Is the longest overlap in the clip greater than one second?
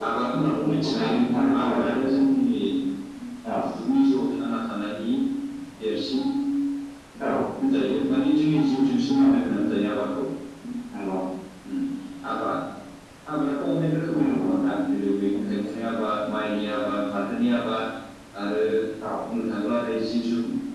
Yes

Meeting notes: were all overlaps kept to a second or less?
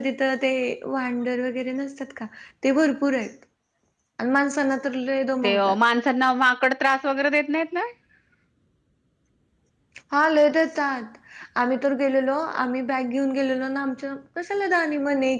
Yes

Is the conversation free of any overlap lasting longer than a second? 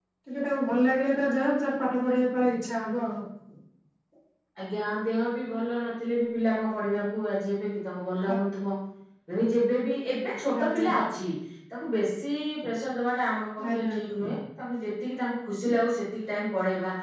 Yes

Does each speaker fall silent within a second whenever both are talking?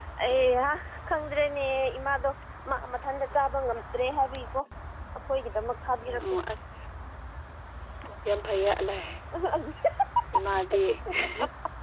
Yes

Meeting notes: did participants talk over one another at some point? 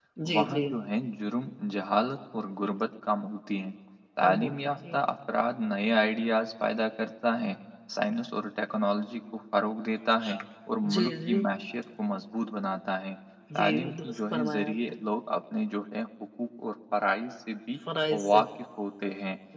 Yes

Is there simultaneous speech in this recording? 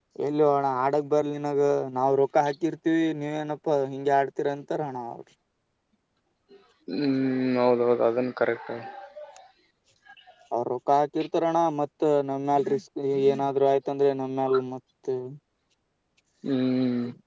No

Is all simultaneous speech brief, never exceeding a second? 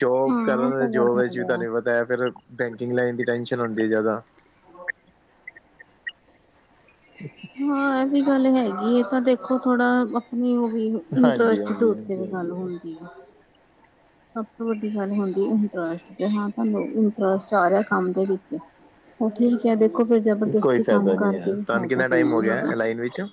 No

